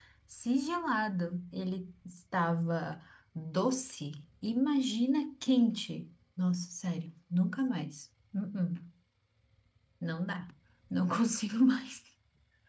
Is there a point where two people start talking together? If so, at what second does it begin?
none

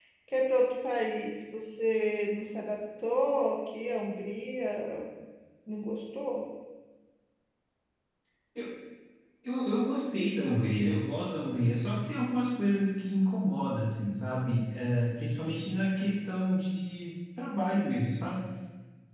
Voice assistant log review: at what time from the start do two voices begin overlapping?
none

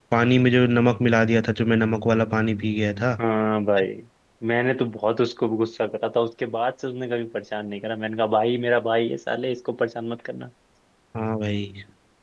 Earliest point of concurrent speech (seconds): none

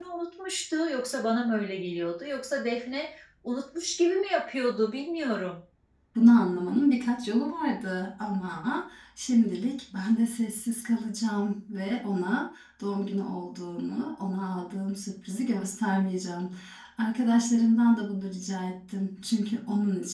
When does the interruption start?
none

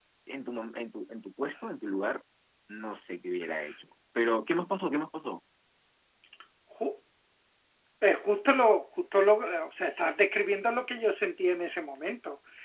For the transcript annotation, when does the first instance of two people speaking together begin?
none

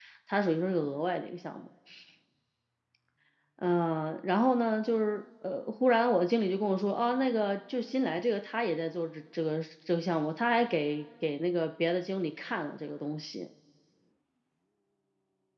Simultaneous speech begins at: none

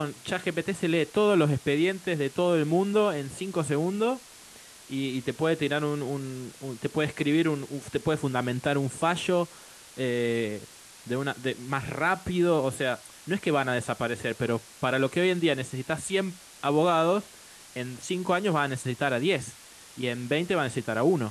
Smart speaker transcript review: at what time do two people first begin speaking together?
none

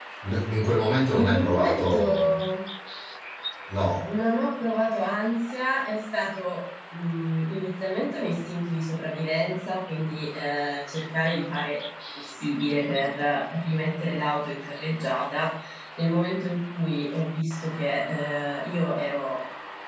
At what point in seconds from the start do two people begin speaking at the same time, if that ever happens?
1 s

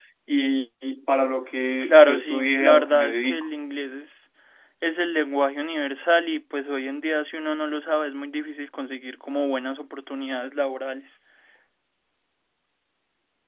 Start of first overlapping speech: 2 s

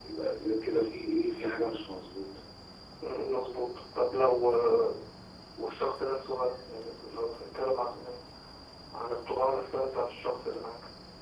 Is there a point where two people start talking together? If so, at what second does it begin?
none

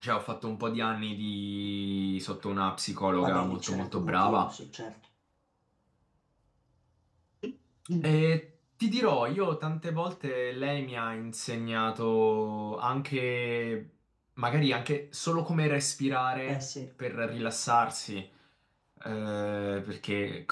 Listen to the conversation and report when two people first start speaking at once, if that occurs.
3 s

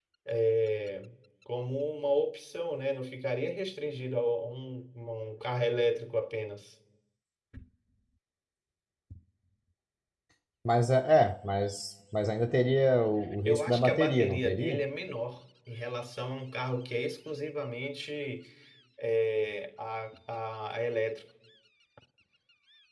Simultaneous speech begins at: 13 s

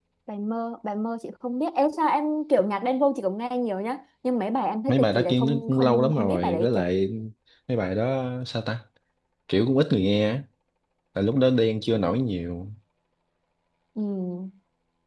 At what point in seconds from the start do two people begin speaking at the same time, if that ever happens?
5 s

